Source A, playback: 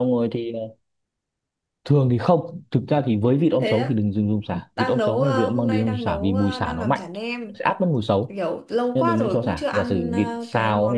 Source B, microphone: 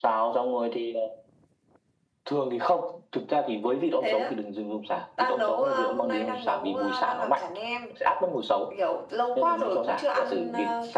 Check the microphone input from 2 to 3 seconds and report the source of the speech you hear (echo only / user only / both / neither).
echo only